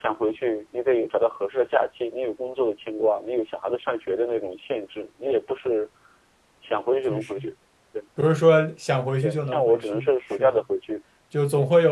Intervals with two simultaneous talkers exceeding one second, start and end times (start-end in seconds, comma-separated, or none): 9.2-10.6